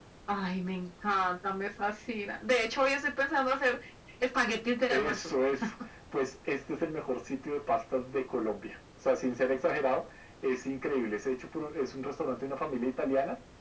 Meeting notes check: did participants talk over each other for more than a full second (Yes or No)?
No